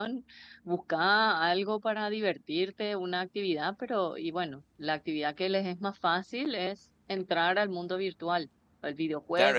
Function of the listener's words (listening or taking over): taking over